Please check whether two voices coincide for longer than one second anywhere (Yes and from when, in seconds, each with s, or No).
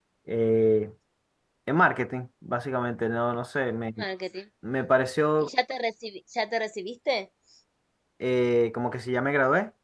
No